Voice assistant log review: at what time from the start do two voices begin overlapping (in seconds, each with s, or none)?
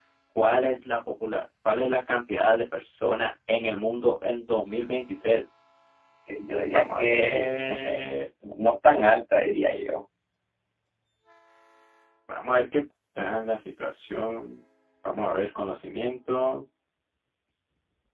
6.7 s